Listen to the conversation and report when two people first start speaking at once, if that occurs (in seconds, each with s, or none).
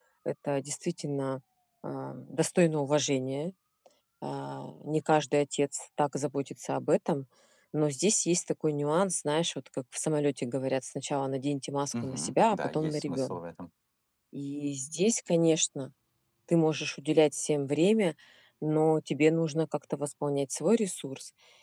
11.9 s